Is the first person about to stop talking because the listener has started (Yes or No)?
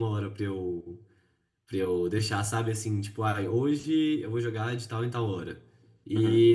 No